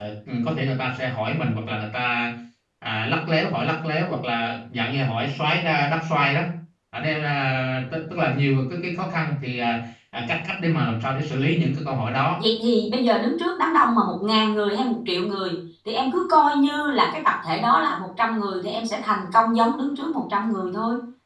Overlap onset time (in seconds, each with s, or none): none